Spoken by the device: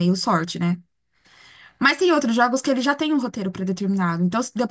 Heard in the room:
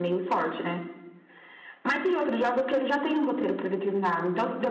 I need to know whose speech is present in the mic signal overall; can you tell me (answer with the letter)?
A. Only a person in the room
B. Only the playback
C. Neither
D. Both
B